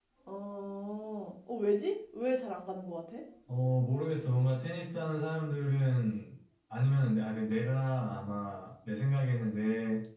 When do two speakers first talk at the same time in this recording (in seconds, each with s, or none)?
none